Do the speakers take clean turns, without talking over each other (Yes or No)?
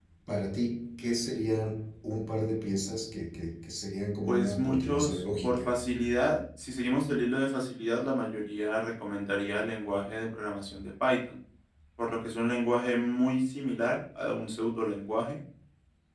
No